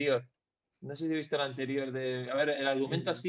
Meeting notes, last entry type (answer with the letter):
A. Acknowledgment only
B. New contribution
A